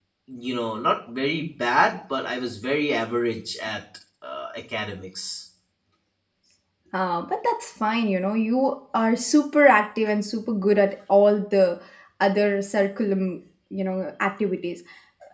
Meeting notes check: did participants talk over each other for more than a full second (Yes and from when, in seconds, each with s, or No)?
No